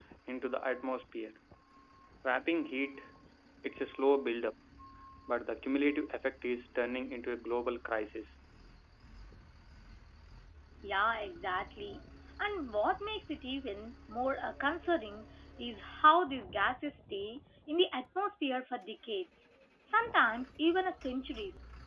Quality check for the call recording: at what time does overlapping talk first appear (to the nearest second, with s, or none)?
none